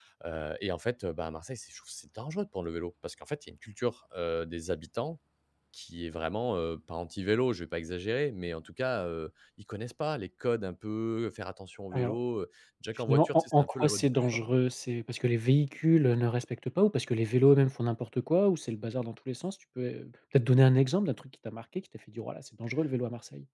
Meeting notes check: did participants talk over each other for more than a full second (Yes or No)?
Yes